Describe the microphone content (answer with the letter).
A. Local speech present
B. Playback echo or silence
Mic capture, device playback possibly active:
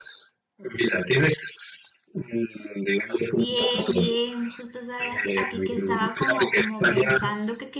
A